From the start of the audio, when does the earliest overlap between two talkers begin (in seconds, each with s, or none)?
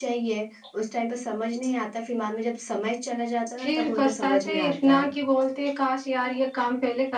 3.6 s